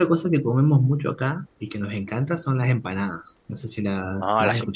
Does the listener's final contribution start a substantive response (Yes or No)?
Yes